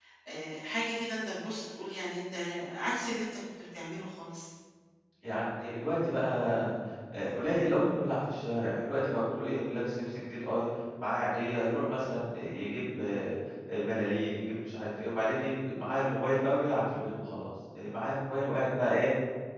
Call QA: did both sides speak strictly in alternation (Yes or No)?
Yes